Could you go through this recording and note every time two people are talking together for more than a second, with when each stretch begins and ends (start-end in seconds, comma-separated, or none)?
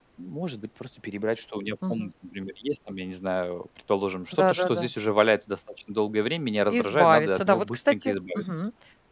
6.7-8.4